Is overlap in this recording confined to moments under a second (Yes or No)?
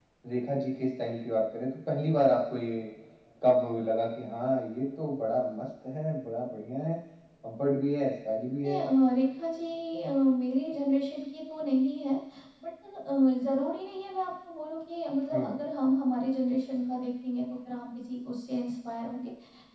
Yes